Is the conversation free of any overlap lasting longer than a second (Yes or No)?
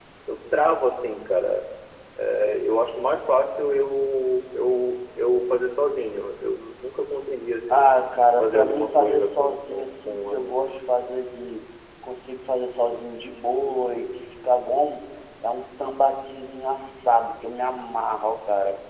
No